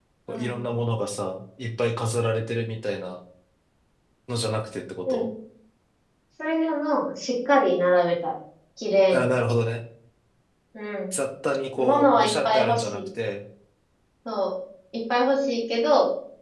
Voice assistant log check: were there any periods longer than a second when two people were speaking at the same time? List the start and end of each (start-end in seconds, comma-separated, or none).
11.8-13.0